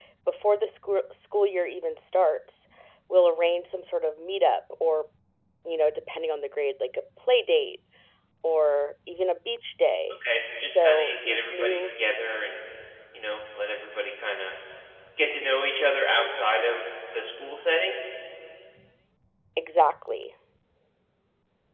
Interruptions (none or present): present